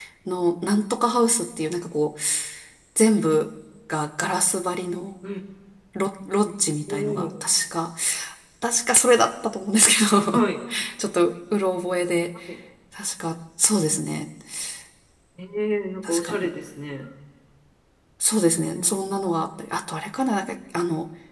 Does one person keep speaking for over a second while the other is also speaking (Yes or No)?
No